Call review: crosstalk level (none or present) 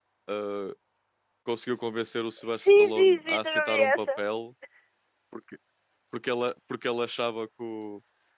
present